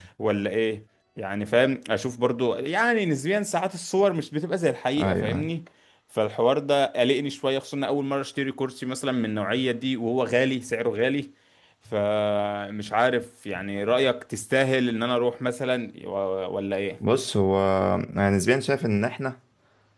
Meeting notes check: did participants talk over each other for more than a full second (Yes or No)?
No